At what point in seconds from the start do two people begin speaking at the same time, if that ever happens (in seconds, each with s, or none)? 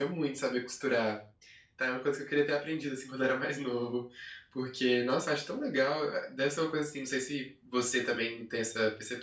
none